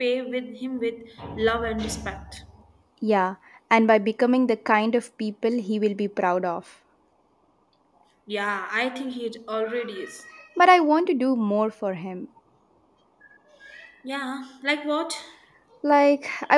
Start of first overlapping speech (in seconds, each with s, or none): none